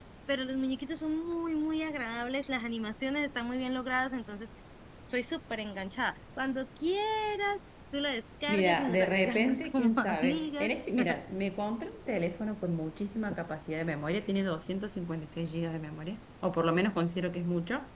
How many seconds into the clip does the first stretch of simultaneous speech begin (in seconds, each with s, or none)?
8.5 s